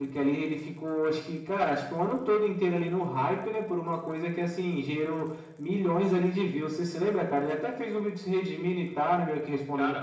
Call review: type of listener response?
taking over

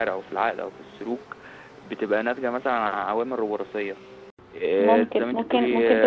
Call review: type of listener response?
taking over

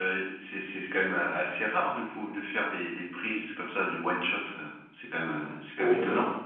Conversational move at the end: taking over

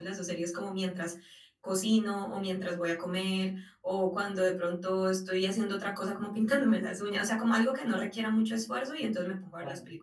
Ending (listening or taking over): listening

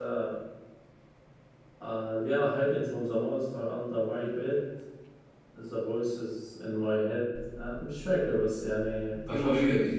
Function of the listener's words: taking over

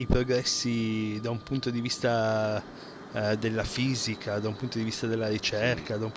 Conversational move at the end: listening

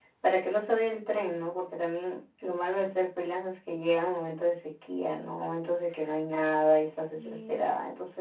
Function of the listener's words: listening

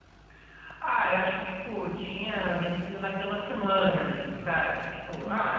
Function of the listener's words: listening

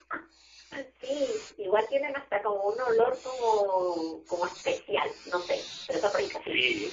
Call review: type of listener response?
taking over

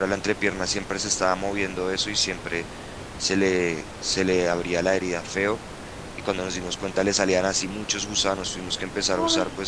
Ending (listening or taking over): listening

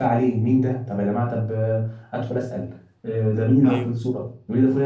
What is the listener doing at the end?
listening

